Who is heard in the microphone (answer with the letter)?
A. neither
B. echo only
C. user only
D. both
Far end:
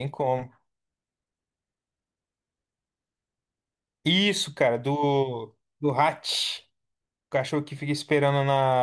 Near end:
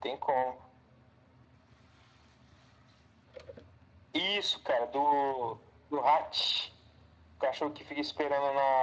B